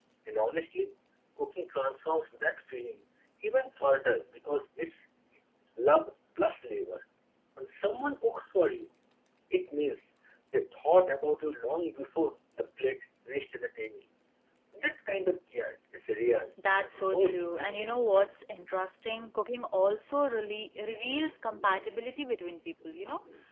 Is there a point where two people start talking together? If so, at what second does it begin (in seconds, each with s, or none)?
16.6 s